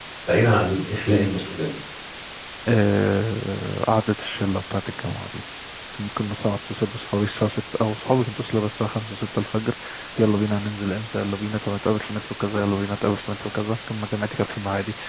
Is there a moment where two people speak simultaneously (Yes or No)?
No